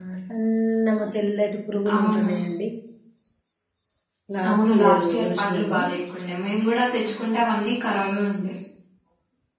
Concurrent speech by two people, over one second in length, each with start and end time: 4.5-5.8

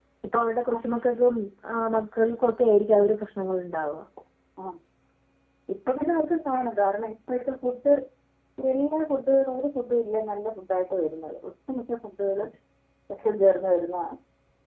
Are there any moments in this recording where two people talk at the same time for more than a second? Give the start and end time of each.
none

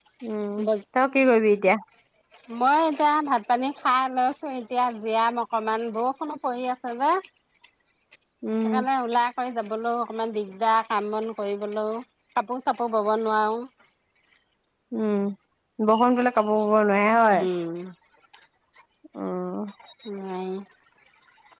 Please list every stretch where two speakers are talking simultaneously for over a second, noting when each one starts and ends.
none

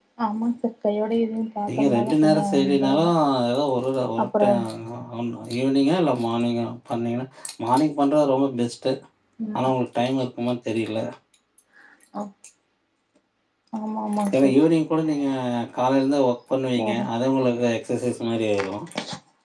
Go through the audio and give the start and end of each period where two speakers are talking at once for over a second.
1.7-3.0

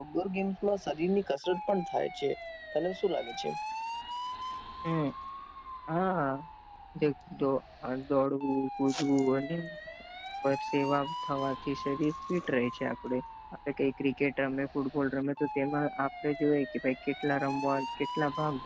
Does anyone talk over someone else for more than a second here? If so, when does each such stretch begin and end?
none

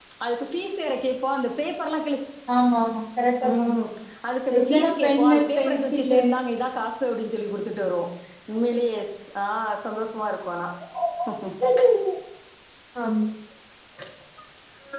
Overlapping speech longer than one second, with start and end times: 4.6-6.2

